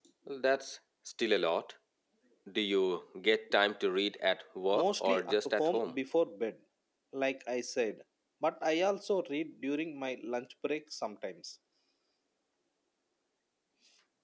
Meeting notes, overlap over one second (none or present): present